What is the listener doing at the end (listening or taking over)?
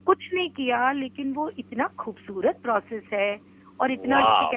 listening